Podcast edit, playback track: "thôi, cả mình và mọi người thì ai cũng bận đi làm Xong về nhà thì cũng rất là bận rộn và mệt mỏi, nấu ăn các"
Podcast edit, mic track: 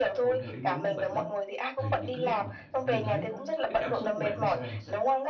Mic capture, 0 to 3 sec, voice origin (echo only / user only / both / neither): both